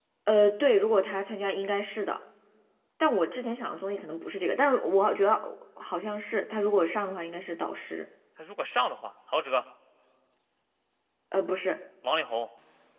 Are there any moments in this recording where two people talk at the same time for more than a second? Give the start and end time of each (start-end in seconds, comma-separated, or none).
none